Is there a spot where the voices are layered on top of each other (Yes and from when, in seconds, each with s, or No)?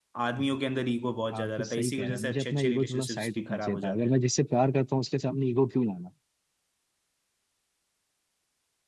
Yes, from 1.3 s